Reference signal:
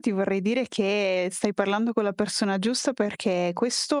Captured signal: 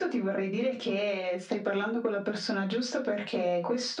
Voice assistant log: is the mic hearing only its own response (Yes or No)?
Yes